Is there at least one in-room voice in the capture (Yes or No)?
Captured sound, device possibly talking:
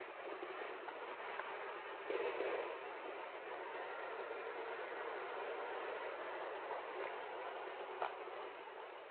No